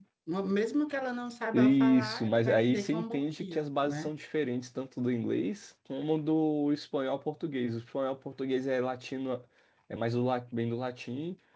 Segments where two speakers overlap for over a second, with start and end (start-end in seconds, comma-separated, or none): 1.5-4.1